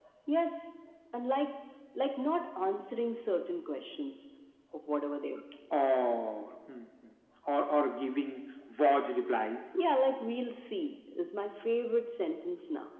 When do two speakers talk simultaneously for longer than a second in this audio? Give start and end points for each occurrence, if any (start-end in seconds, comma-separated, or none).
none